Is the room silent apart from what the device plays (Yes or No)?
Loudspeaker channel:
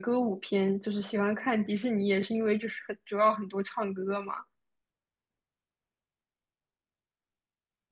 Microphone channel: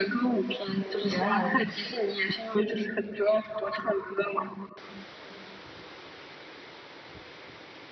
No